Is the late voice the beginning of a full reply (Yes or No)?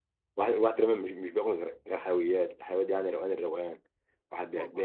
No